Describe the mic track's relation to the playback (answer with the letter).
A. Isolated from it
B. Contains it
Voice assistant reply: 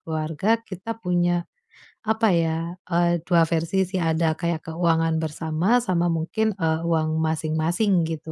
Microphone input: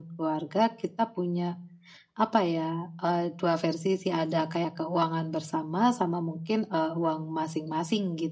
B